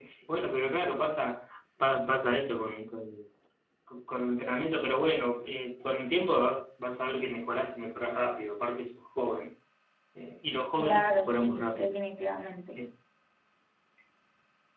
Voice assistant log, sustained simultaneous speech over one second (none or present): present